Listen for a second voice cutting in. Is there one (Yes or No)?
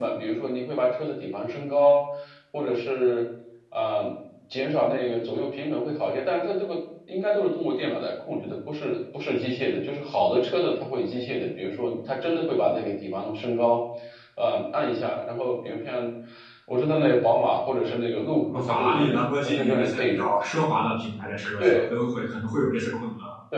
Yes